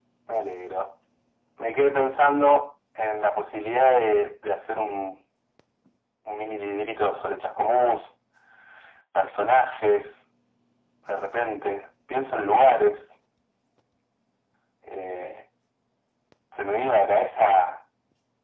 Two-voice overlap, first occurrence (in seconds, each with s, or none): none